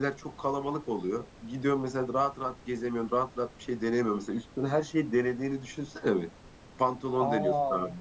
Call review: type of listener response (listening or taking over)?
listening